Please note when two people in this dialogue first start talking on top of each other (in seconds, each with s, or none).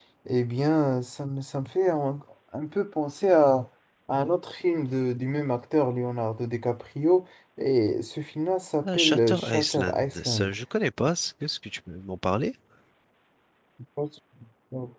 8.8 s